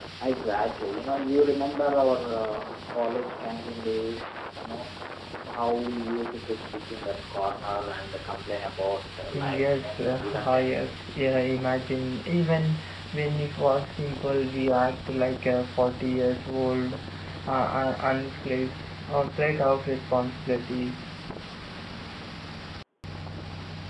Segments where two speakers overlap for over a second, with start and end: 9.3-10.8

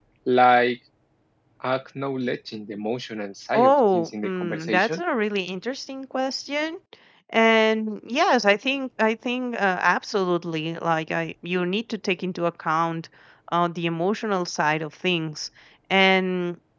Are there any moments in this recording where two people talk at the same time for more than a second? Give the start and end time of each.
3.5-5.0

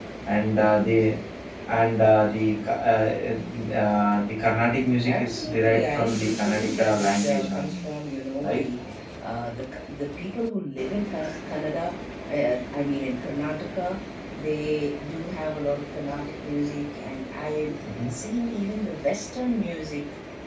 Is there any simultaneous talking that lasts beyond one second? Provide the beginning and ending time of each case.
5.0-7.8

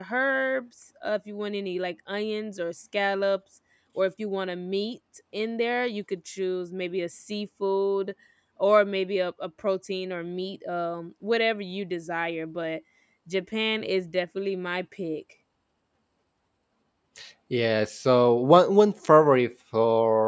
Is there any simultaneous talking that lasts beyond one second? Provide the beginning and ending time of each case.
none

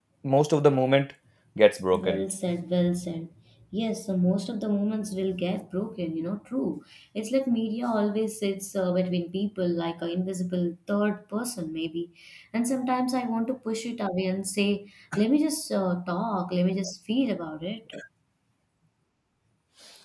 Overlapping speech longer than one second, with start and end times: none

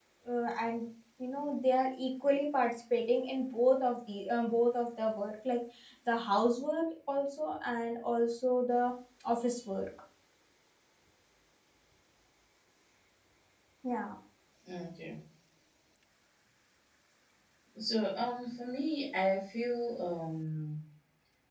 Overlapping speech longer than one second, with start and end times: none

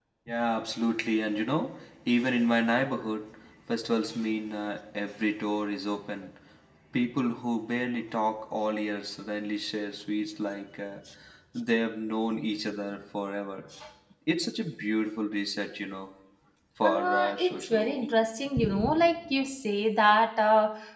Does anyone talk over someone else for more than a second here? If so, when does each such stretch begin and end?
16.8-18.1

